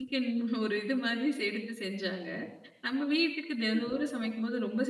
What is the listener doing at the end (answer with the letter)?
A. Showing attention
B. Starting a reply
A